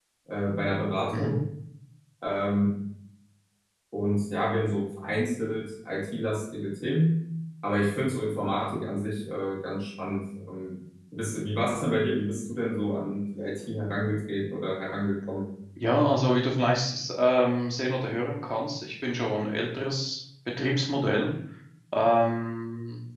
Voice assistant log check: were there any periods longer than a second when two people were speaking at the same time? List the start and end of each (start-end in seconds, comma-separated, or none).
none